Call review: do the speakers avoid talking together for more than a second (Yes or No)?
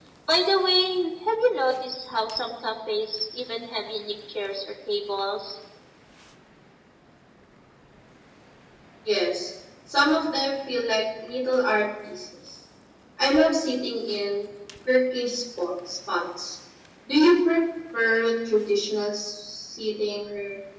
Yes